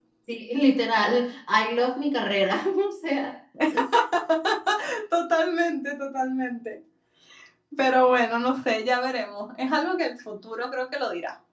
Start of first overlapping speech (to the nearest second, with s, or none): none